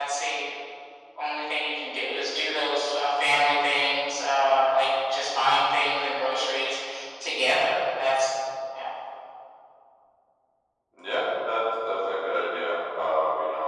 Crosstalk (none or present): none